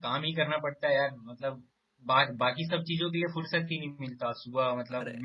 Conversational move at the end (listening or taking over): listening